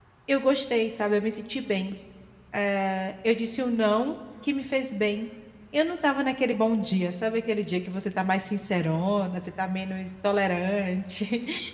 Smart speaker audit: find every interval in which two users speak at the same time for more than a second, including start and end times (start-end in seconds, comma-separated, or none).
none